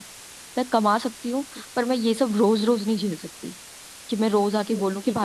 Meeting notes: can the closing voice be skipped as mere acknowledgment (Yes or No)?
No